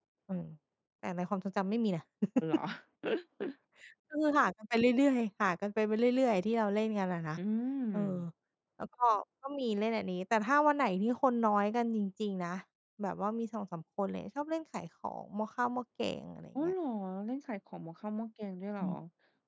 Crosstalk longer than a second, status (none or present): none